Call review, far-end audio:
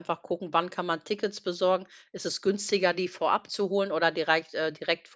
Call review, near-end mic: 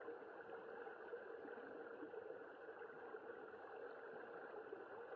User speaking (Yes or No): No